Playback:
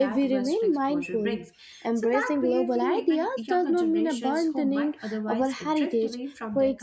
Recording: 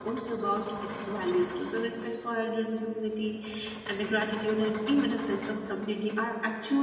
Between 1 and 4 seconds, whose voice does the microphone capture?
user only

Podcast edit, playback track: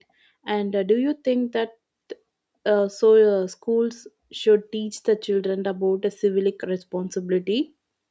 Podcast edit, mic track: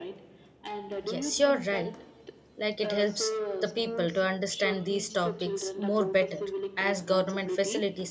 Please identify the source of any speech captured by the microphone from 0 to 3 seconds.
both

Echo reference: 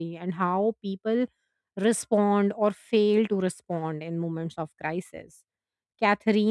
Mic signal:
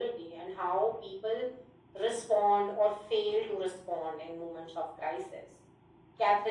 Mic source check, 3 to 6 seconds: echo only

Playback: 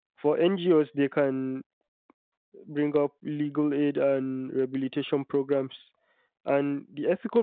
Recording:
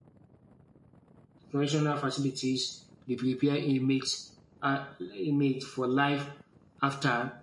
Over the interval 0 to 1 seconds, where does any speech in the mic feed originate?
neither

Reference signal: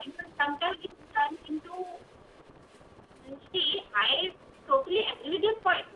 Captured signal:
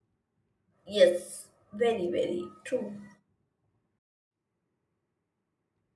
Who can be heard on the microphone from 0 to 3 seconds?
user only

